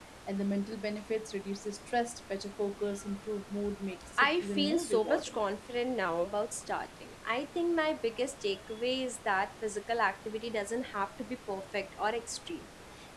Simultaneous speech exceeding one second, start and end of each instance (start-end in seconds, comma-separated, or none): 4.2-5.4